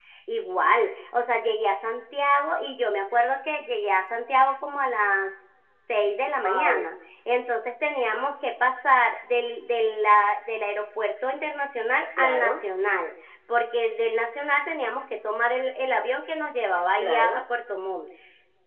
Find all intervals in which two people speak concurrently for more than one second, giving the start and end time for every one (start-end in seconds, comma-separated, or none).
none